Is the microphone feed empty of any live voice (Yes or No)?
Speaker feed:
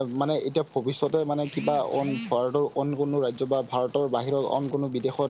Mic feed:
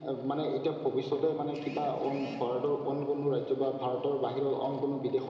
Yes